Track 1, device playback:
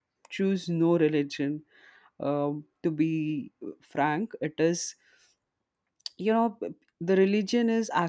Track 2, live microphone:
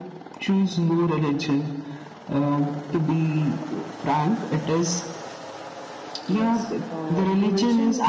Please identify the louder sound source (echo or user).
echo